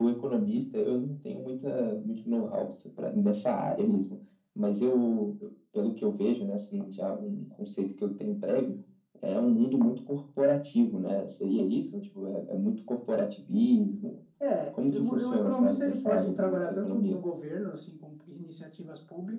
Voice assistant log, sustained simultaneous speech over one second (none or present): present